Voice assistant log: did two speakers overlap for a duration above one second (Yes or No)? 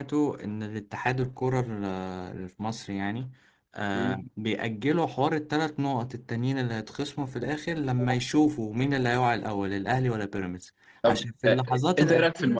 Yes